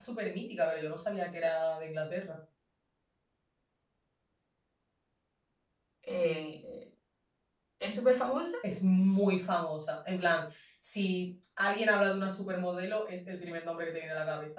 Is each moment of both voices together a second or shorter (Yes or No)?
Yes